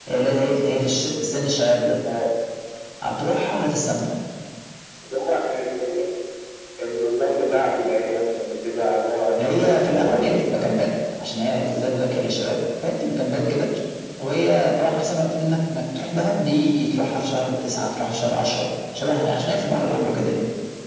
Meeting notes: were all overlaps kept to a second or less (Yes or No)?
No